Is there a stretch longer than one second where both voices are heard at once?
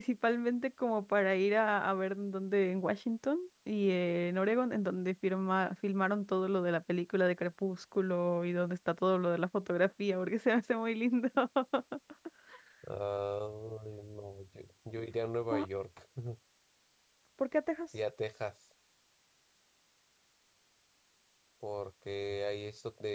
No

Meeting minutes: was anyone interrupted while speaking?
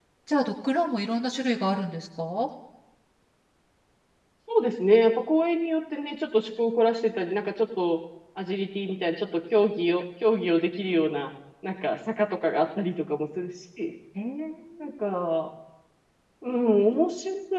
No

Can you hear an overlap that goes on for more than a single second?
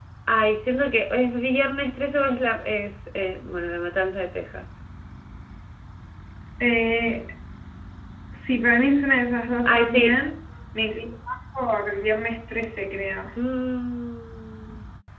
No

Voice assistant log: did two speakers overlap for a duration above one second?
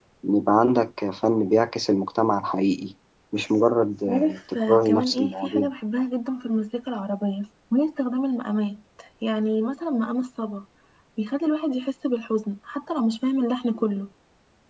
Yes, from 4.1 s

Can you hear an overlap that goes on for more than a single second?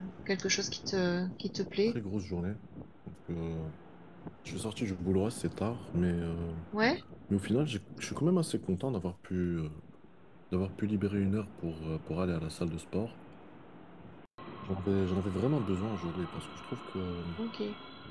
No

